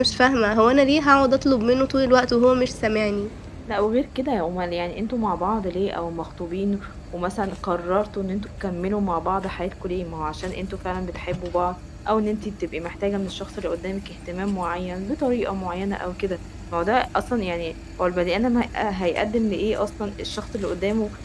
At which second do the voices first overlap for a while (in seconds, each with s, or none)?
none